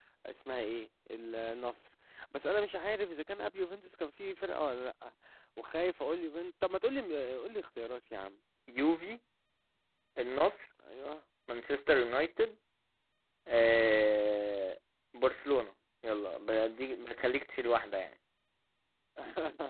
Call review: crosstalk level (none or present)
none